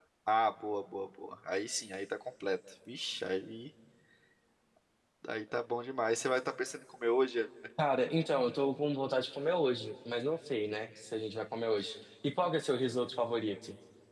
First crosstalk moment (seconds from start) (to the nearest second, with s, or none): none